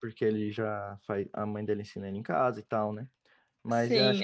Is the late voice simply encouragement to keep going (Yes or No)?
Yes